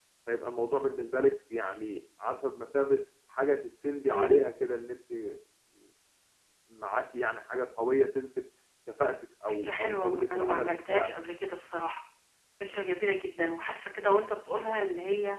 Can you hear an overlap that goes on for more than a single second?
Yes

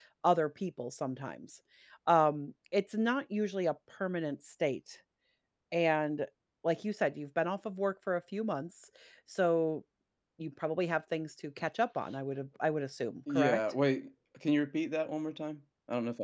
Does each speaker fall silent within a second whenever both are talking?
Yes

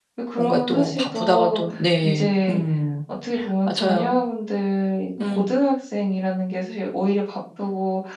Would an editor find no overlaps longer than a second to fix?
No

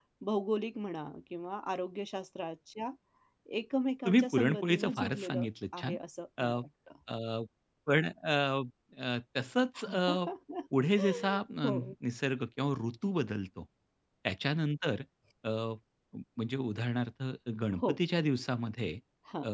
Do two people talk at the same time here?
Yes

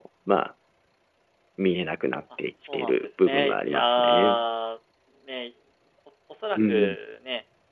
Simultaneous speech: Yes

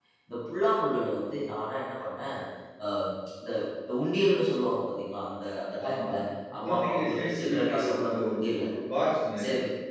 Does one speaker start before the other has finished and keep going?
Yes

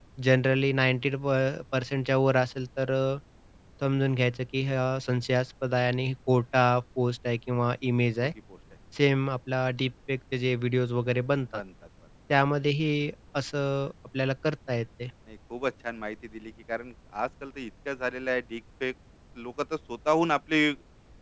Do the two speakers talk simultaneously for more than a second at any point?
No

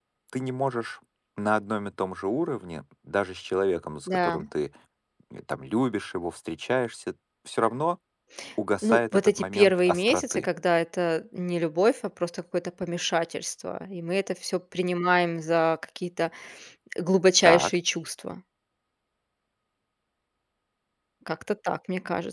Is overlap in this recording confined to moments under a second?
No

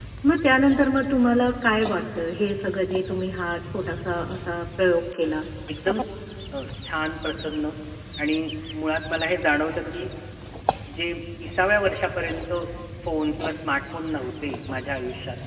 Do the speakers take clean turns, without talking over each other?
Yes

